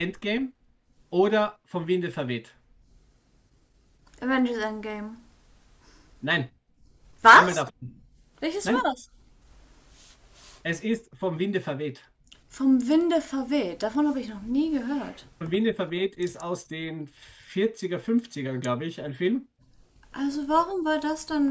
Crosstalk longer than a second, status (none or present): none